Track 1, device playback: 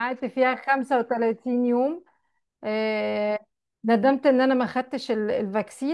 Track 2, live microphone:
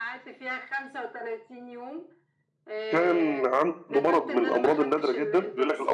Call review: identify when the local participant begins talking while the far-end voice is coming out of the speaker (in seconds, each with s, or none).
2.9 s